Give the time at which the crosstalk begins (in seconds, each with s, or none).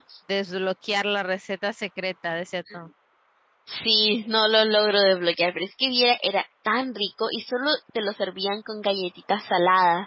none